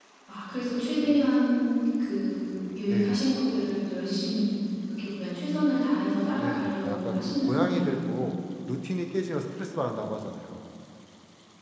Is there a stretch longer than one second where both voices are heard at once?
Yes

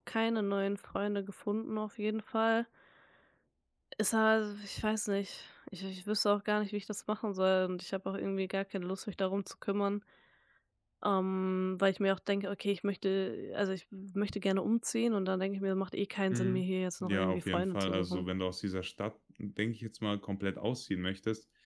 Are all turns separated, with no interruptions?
No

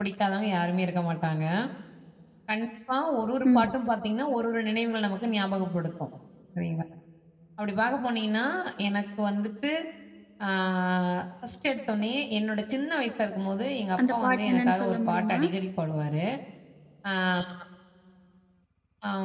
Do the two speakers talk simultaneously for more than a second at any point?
Yes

